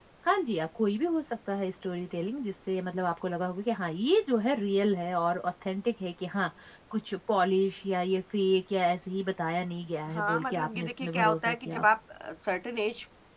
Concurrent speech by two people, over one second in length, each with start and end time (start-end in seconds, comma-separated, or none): 10.1-11.8